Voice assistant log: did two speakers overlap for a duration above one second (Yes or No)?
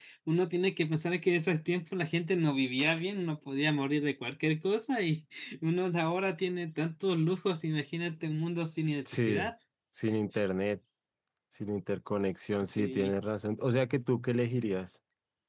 No